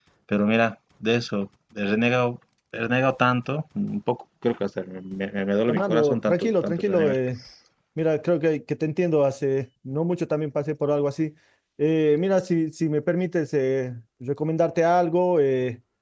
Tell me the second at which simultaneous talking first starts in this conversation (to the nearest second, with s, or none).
6 s